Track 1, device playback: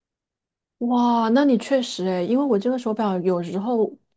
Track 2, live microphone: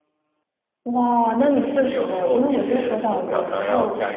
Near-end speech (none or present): present